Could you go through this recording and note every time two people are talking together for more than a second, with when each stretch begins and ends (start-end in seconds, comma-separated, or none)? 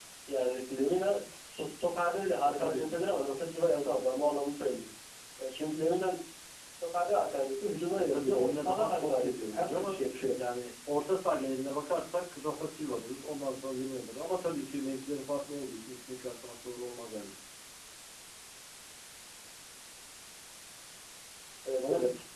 8.0-10.0